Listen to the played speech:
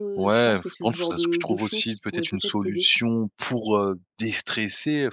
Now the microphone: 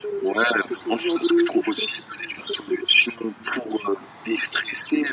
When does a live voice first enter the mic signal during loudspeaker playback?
none

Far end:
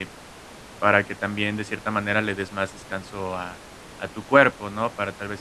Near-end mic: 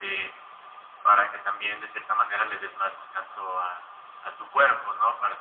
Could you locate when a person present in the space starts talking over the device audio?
none

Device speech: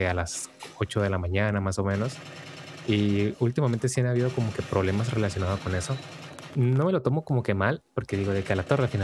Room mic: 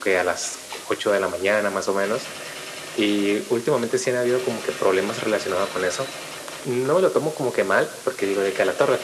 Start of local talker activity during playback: none

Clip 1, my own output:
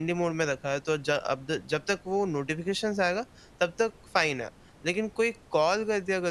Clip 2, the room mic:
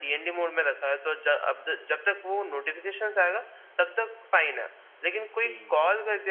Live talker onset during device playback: 5.2 s

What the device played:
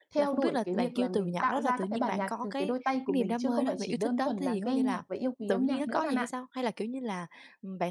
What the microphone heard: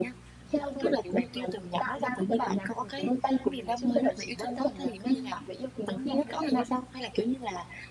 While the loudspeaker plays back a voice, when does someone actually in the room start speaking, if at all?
none

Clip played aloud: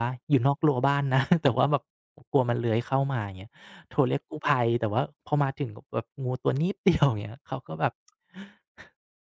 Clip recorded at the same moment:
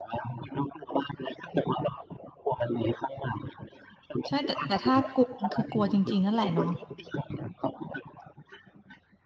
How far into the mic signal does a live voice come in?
4.3 s

